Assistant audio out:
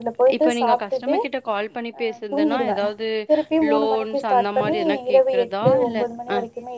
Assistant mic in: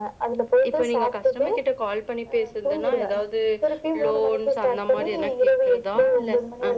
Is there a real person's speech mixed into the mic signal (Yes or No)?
No